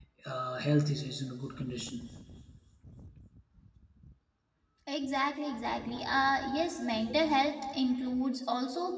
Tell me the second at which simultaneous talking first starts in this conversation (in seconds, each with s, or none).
none